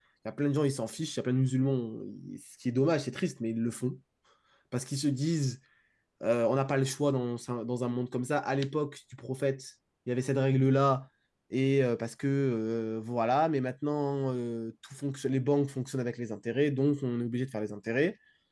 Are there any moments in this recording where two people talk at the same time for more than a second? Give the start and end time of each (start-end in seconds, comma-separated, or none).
none